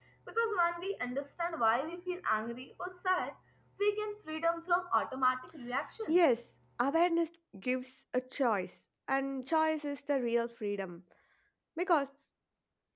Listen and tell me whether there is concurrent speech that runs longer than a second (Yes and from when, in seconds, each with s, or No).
No